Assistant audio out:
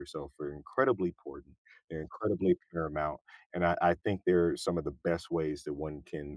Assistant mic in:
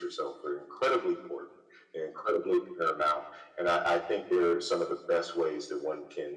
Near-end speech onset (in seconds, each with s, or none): none